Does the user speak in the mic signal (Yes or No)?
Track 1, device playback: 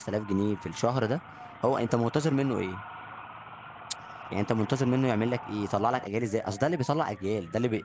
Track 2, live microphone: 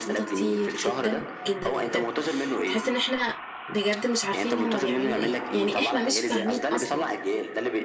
Yes